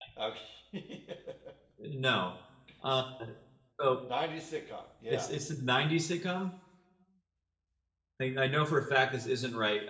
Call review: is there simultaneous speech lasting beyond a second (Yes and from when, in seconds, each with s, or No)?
No